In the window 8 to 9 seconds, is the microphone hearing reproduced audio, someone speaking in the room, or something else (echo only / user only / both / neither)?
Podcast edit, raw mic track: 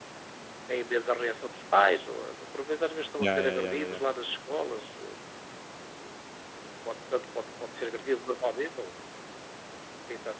echo only